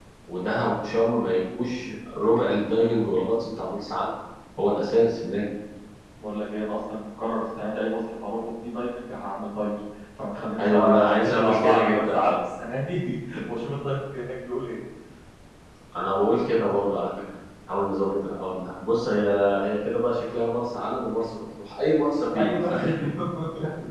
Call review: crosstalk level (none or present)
present